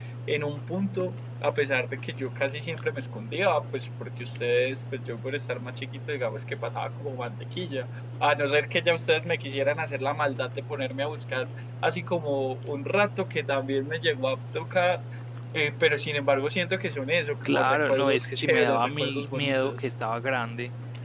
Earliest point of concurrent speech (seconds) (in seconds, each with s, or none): 17.4 s